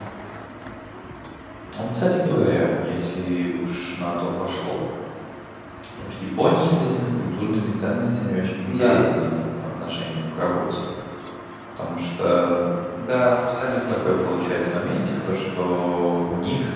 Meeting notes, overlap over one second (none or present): none